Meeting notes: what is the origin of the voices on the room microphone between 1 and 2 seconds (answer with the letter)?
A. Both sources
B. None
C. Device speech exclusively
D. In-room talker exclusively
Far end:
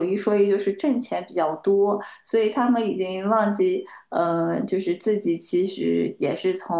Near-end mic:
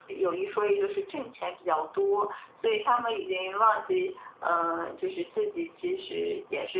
C